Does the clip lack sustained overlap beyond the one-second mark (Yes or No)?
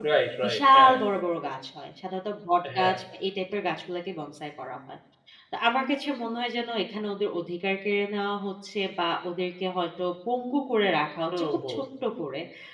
Yes